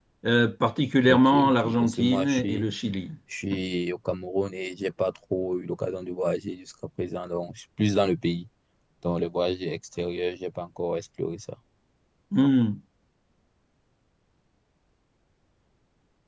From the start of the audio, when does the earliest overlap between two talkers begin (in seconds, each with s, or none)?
1.0 s